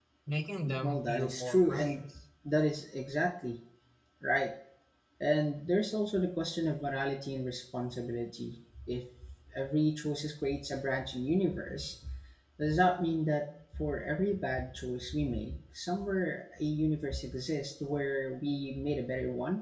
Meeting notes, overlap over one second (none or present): present